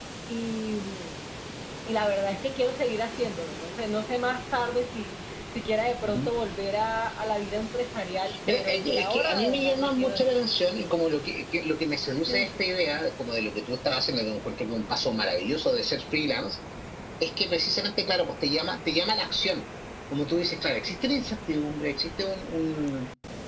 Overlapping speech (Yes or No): Yes